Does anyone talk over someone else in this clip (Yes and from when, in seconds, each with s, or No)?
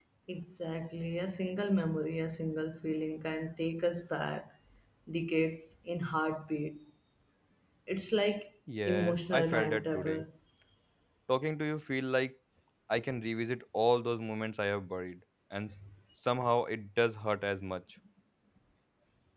Yes, from 8.7 s